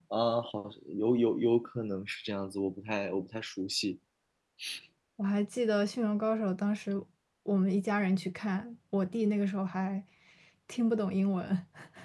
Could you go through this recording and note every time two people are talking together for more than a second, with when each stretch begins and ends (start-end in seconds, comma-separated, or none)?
none